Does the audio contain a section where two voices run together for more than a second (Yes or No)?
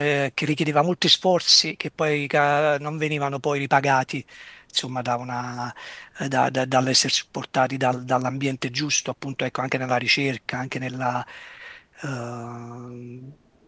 No